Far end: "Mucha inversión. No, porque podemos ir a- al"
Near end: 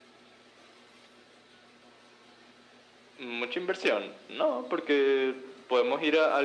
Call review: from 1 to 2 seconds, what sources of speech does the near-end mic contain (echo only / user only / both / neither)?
neither